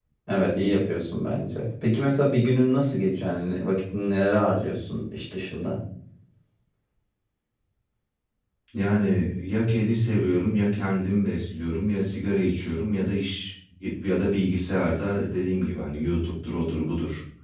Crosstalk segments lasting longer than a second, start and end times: none

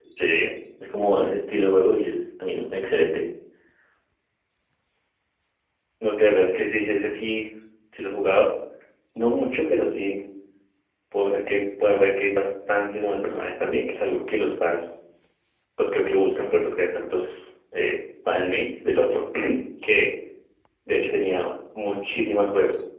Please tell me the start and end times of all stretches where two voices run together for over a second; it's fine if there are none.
none

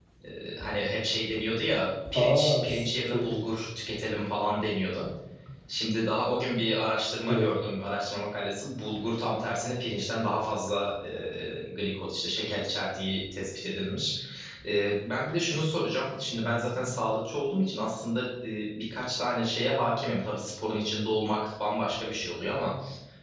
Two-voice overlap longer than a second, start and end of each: 2.1-3.5

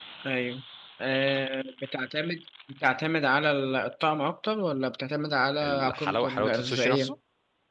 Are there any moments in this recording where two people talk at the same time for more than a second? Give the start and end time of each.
5.6-7.1

